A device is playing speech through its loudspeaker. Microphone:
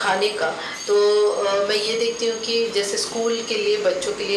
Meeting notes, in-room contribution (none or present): none